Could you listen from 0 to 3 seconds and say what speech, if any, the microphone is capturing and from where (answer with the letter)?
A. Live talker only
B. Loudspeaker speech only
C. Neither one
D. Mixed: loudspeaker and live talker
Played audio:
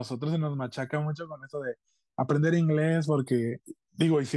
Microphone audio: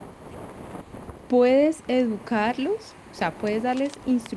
A